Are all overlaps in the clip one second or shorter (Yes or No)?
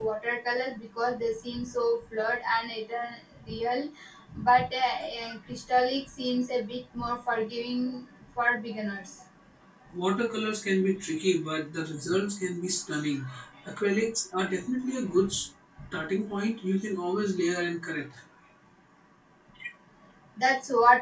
Yes